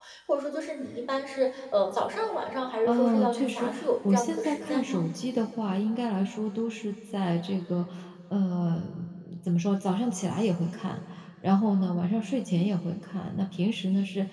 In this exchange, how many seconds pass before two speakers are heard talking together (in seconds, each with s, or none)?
2.8 s